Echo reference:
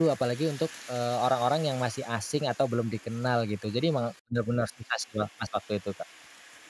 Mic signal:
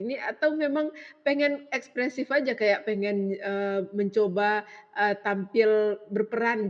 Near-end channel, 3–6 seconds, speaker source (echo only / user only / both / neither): user only